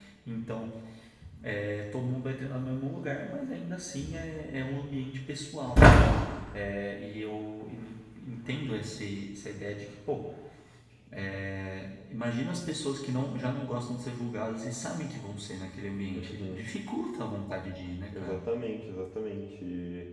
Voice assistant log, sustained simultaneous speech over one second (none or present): none